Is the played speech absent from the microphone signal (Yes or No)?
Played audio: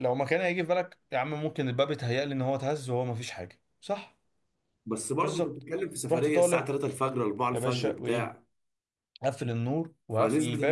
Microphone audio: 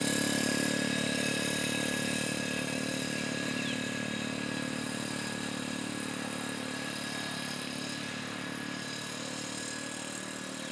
Yes